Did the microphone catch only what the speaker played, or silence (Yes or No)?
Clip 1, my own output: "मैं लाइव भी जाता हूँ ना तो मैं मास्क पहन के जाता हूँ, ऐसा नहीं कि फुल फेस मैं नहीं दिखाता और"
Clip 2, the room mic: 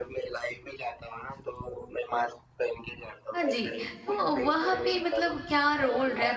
No